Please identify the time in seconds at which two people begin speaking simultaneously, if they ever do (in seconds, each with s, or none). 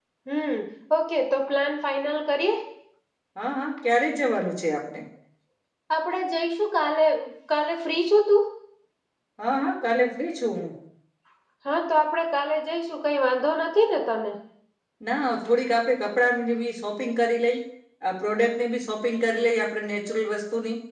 none